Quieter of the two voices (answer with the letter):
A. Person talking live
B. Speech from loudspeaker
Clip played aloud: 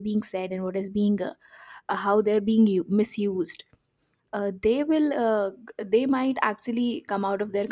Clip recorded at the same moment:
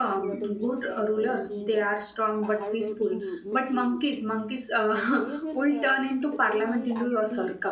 B